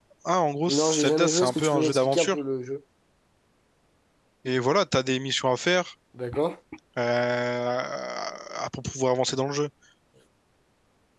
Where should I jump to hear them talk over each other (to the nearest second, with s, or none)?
1 s